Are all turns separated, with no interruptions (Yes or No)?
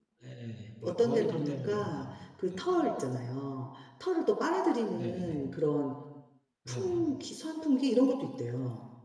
No